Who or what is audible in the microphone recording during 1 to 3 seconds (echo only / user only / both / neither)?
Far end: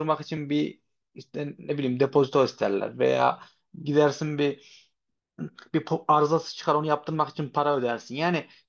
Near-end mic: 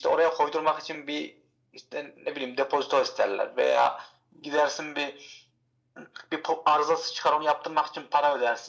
echo only